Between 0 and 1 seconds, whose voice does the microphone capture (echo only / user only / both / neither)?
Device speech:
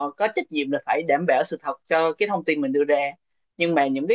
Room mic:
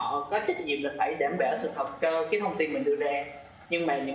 echo only